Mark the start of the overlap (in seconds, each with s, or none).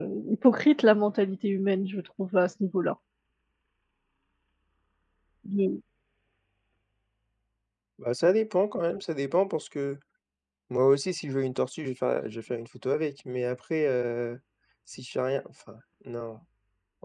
none